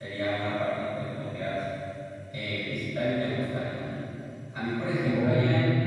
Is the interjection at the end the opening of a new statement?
No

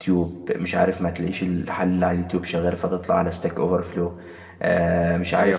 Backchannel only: Yes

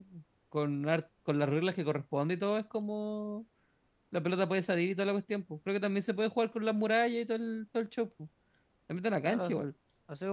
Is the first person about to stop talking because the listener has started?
Yes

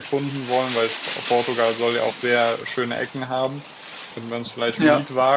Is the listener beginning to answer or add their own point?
No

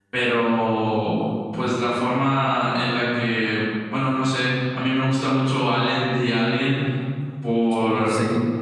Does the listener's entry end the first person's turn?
No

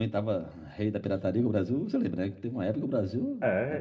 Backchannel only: No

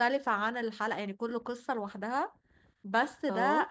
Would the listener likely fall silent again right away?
Yes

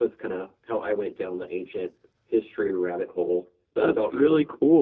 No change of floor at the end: No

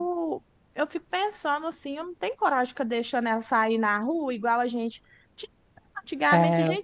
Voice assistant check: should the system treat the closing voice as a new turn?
No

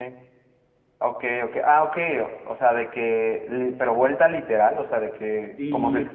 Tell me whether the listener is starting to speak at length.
No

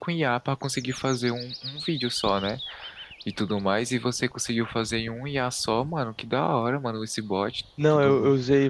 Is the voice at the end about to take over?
Yes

